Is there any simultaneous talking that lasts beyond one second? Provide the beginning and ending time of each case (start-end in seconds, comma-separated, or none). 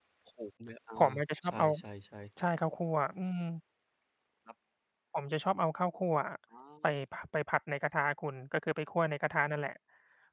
none